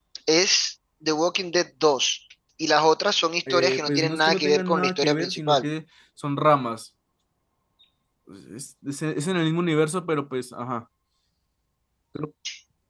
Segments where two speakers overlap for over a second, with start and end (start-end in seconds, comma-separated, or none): 3.5-5.6